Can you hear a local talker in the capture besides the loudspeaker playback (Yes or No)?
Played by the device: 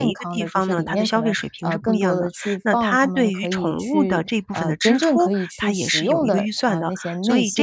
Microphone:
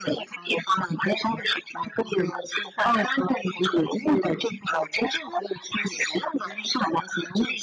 No